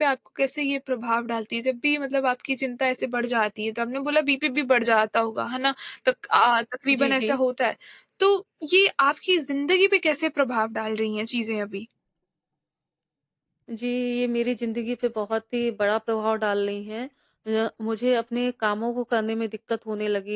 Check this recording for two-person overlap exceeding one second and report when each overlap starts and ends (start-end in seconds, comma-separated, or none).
none